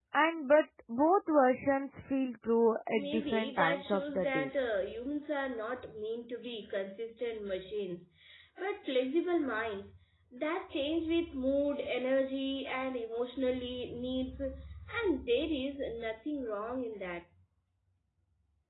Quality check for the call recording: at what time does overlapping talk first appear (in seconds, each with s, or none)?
2.9 s